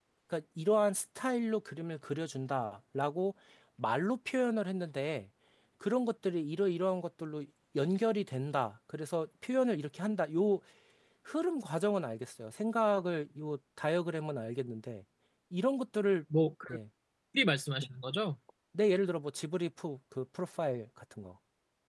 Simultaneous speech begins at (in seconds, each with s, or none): none